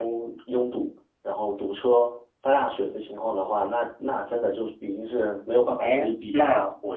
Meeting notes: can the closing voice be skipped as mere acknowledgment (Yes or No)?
No